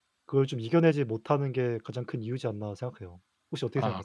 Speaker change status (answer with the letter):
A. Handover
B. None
A